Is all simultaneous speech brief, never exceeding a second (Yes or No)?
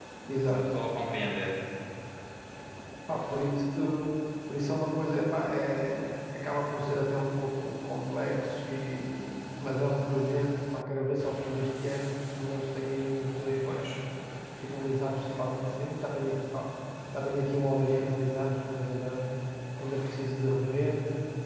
Yes